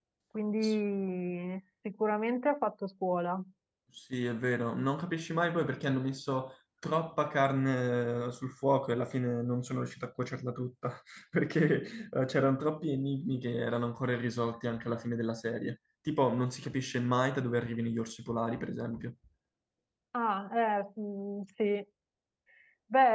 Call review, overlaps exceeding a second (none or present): none